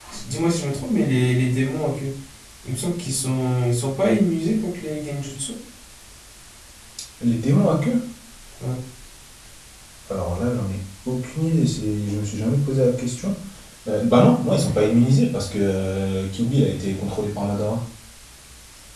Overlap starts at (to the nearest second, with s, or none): none